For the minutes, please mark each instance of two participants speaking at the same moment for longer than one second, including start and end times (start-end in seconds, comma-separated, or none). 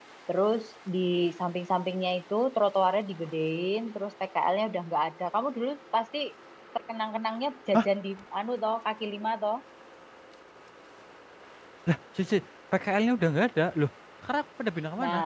none